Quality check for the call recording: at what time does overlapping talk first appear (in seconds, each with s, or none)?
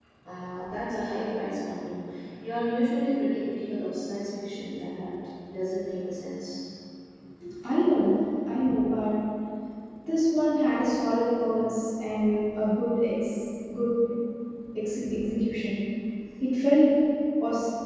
none